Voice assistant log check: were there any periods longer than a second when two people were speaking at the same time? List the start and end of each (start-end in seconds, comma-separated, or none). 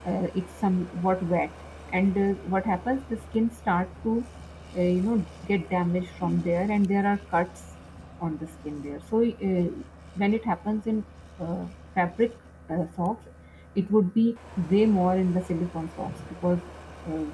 none